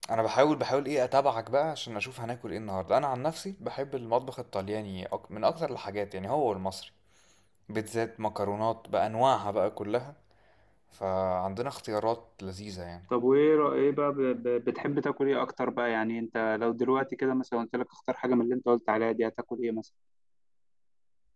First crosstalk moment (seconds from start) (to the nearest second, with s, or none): none